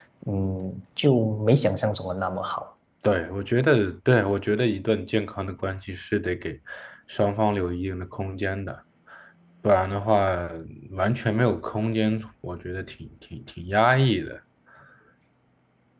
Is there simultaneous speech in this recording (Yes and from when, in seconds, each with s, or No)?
No